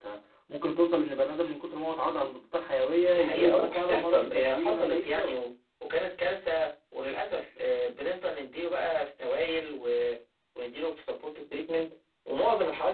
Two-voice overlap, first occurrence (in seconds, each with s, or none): 3.1 s